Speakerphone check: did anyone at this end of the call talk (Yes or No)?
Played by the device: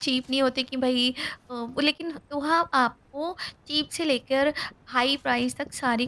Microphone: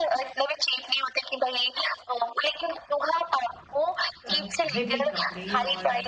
Yes